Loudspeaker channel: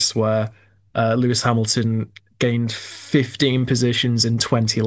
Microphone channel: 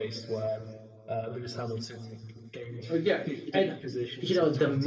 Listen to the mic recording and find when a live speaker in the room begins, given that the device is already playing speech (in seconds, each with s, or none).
2.9 s